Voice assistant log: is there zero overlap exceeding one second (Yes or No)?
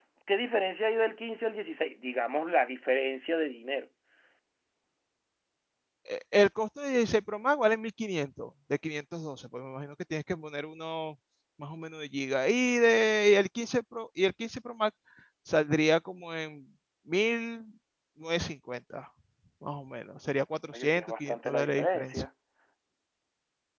No